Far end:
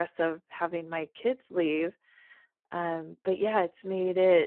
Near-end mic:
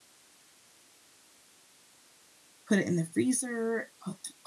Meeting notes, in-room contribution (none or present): present